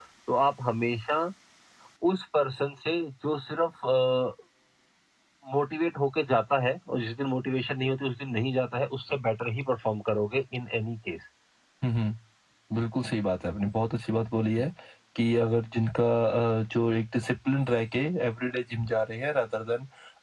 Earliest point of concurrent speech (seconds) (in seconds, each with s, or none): none